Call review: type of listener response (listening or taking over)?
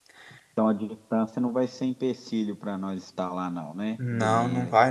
taking over